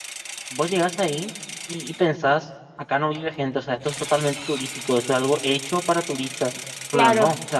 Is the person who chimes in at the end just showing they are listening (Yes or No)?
Yes